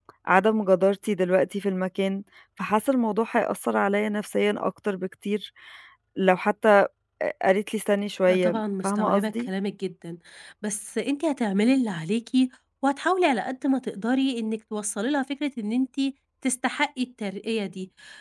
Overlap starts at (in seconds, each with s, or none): 8.3 s